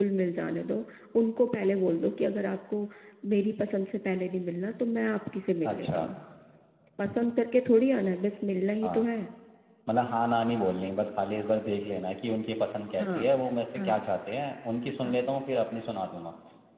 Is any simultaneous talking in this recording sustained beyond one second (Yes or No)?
No